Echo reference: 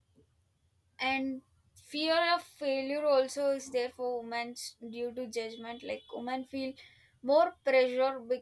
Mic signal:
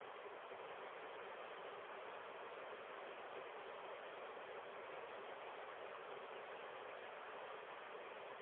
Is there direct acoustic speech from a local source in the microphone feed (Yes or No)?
No